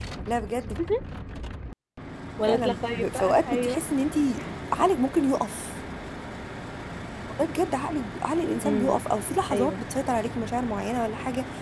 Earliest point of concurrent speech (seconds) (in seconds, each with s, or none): 2.5 s